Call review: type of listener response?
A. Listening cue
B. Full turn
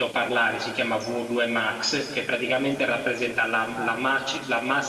A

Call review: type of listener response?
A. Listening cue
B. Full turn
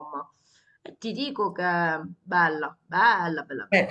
B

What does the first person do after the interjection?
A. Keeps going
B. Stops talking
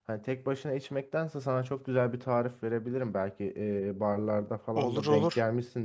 A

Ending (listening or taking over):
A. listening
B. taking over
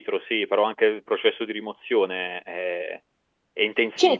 B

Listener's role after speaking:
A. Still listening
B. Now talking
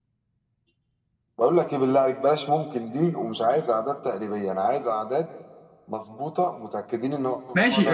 B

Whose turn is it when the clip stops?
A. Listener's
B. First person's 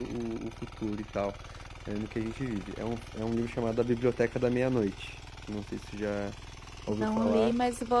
A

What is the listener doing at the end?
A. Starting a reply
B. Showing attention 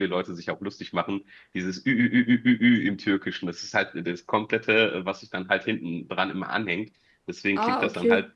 B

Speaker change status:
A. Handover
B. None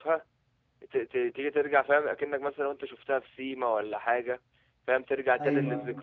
B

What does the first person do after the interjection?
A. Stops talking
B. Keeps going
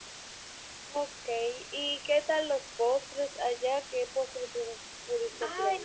A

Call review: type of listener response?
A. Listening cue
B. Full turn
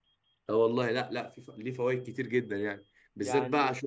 A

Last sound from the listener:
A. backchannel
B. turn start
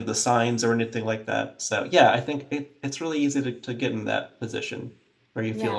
A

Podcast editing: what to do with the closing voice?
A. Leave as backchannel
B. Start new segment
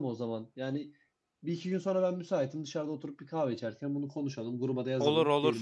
A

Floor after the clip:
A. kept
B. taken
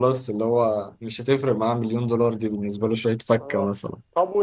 B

